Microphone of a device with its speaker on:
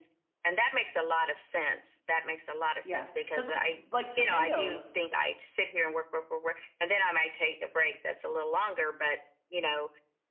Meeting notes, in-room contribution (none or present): present